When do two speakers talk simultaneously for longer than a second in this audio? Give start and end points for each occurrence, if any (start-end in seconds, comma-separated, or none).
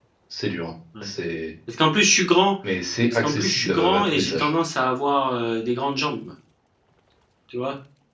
3.1-4.5